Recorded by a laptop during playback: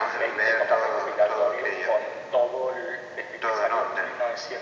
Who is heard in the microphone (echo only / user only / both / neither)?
echo only